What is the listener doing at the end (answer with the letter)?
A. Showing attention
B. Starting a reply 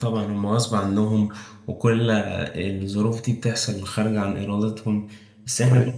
A